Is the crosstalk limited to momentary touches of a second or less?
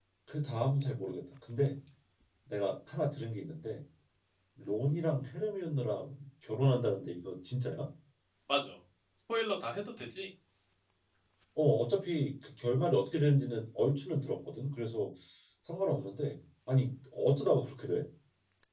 Yes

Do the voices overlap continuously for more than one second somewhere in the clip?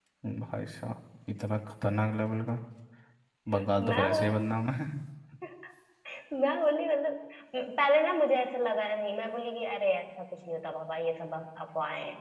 No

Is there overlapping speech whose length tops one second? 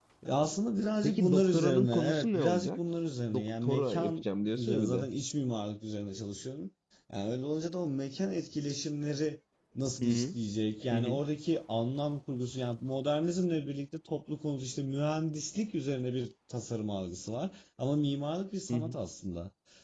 Yes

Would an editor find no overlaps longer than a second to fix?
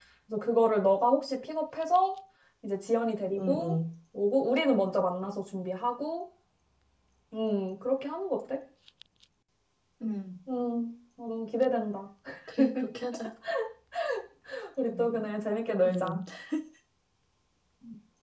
Yes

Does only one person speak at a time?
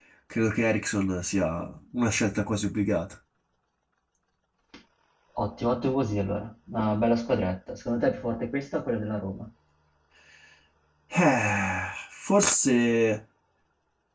Yes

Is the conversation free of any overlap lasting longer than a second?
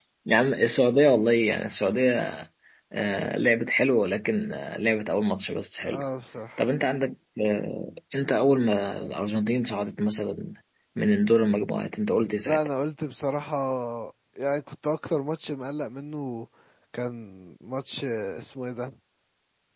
Yes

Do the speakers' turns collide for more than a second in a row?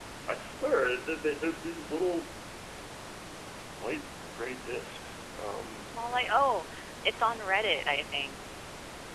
No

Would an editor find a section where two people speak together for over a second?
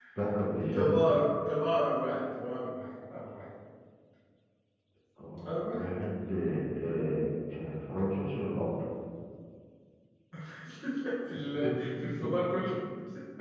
No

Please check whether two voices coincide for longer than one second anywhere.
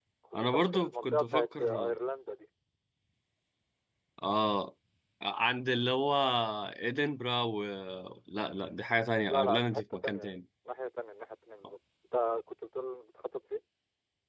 Yes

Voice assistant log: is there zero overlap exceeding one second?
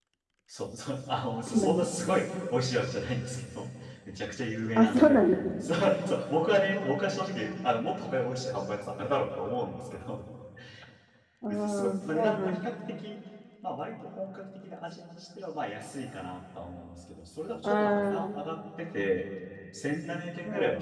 No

